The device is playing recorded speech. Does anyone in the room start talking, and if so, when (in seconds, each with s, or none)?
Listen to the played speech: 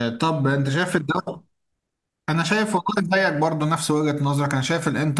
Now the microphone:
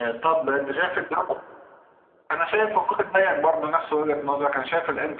none